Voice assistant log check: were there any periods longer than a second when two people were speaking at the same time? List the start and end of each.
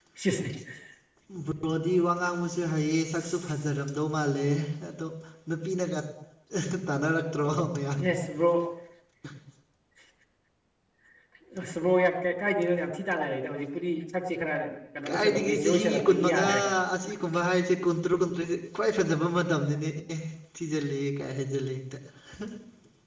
15.1-16.4

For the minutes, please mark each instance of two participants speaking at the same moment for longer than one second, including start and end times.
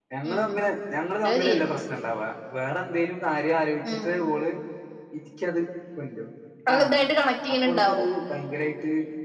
none

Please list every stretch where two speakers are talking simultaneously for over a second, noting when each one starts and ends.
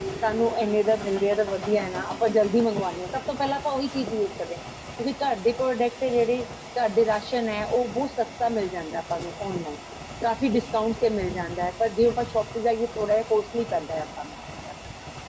none

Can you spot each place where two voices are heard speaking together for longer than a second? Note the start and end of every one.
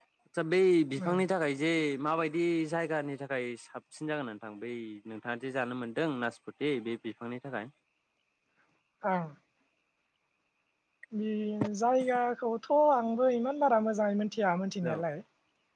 none

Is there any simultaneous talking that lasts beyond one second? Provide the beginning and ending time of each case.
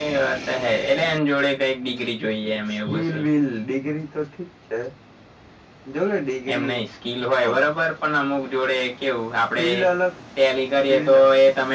none

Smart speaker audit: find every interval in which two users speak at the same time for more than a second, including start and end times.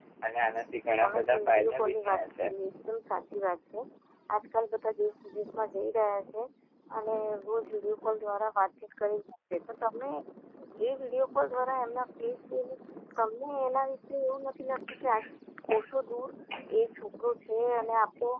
1.0-2.5

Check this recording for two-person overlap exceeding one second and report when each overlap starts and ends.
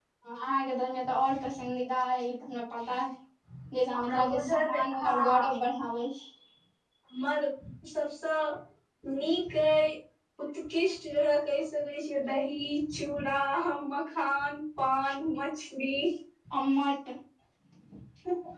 3.9-5.5

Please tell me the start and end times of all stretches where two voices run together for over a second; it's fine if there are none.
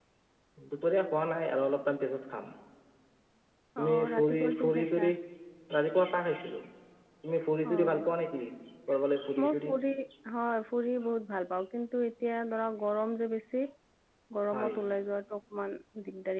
3.8-5.0

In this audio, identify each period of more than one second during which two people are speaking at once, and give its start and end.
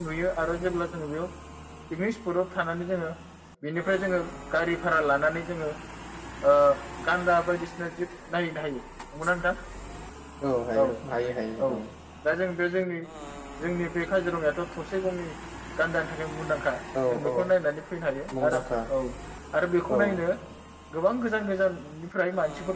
none

